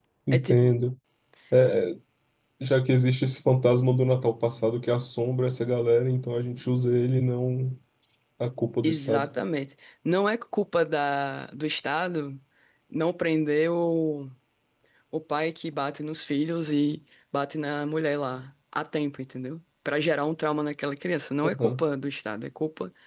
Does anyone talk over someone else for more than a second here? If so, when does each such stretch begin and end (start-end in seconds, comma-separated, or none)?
none